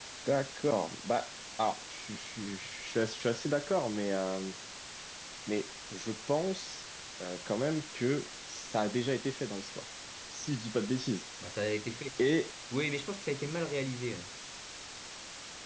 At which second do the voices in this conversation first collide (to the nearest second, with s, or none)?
none